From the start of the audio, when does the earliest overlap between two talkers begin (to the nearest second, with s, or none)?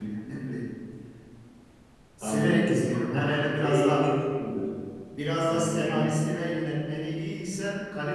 2 s